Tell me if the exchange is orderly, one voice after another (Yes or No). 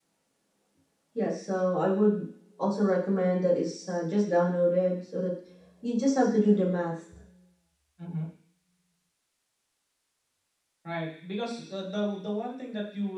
Yes